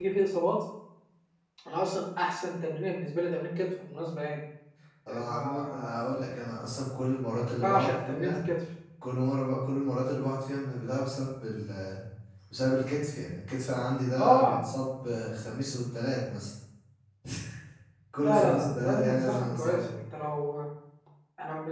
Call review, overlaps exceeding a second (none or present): present